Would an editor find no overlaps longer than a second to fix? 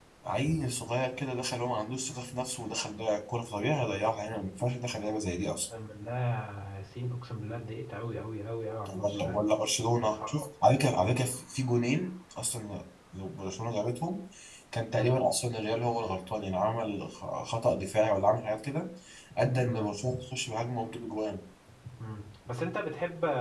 Yes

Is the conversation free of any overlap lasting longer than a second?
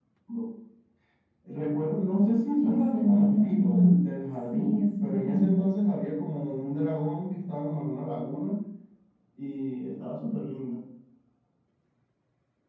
No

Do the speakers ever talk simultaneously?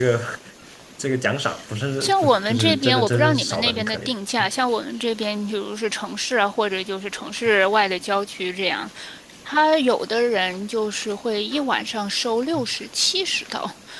Yes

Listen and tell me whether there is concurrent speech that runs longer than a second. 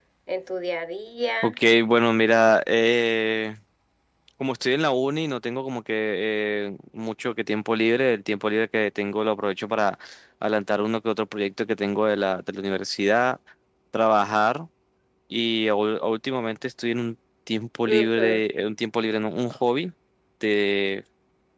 No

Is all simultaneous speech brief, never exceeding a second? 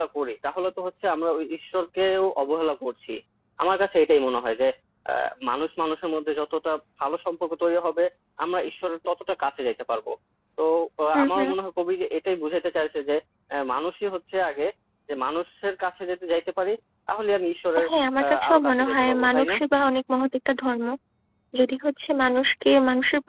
No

